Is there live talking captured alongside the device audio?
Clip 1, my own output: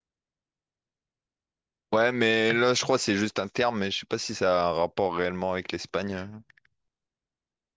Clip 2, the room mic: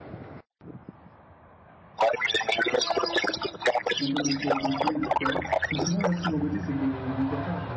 Yes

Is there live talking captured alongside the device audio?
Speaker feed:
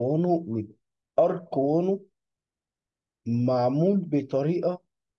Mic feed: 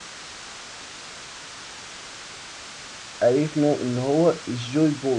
Yes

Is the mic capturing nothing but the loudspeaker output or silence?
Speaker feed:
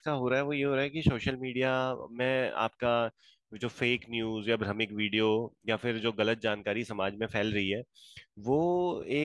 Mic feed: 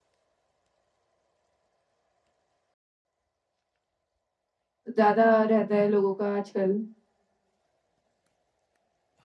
No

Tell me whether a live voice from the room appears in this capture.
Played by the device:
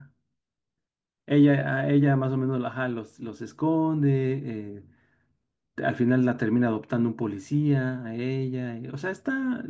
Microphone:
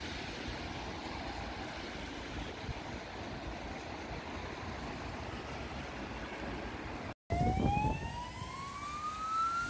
No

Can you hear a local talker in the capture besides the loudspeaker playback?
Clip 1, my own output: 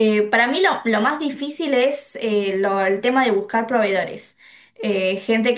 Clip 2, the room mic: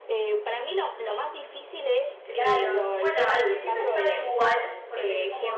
Yes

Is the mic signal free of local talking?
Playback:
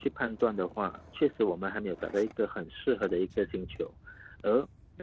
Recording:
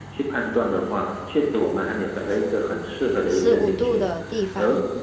No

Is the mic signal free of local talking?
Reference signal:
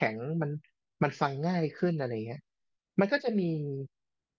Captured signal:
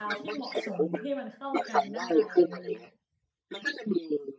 No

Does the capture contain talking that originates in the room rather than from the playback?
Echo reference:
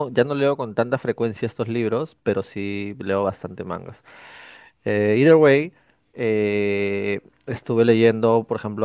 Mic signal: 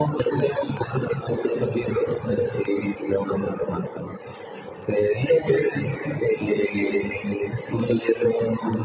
No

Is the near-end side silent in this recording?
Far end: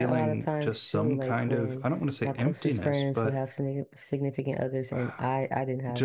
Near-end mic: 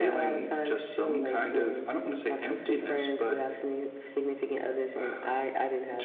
Yes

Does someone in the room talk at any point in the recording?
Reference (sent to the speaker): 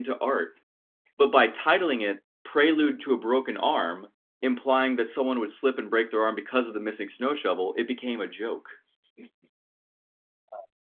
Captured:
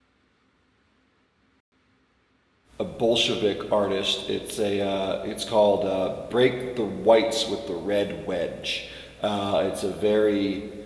Yes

